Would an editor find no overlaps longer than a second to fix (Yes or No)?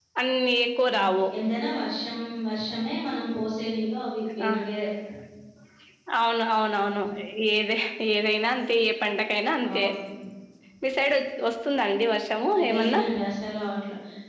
Yes